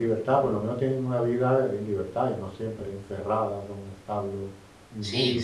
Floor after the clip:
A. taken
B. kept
A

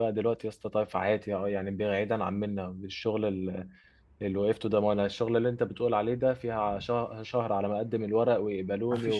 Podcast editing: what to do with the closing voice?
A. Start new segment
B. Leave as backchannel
A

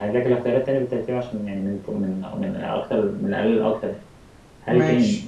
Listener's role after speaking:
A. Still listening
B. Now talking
A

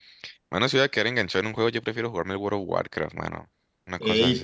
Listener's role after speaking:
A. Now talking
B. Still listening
A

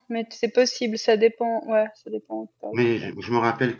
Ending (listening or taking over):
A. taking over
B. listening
A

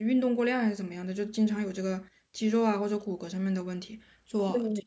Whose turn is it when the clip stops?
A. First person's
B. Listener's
A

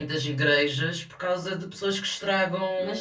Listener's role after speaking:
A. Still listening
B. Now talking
B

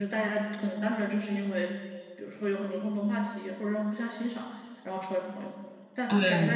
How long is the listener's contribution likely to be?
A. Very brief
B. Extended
A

